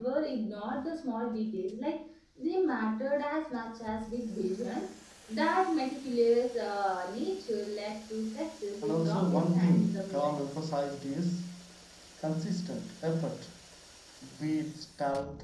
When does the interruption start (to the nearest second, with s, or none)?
9 s